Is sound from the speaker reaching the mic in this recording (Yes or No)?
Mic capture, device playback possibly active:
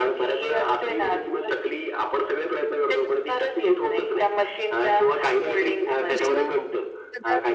Yes